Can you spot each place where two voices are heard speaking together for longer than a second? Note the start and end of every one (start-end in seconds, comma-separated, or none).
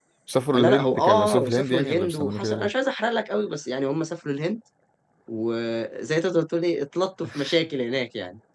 0.5-2.7